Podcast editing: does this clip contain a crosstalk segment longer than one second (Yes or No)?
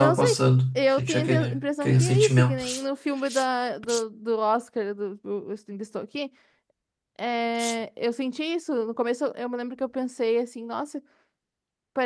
Yes